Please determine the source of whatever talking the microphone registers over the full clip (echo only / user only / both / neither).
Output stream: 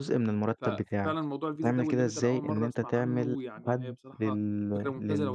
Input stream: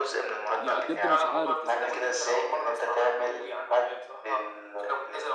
both